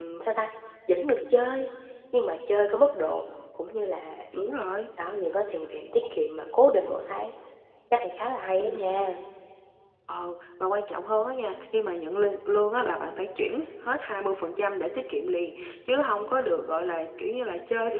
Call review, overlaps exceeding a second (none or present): none